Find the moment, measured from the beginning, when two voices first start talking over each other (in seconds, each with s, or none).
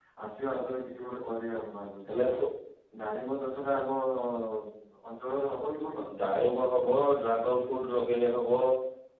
none